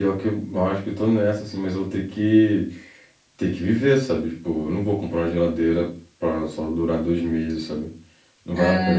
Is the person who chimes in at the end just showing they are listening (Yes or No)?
No